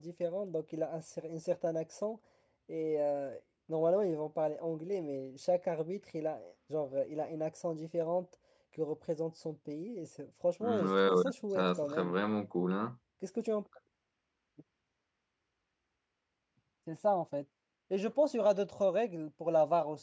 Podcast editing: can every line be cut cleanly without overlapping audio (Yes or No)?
No